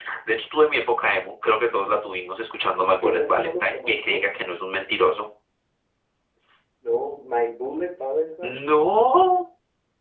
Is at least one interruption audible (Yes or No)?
Yes